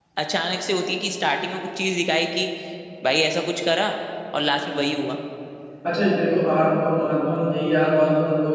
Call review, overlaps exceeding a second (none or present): none